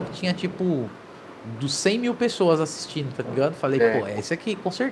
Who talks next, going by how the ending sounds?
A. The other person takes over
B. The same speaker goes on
B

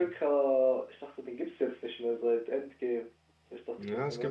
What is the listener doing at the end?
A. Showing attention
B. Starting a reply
B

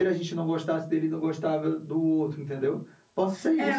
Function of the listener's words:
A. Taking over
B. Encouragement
A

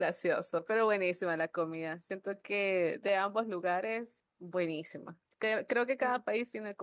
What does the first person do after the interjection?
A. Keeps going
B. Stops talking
A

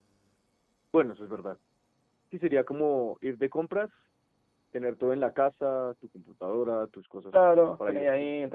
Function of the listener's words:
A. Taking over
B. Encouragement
A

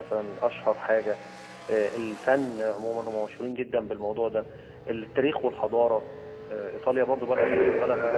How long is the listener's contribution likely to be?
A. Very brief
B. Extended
B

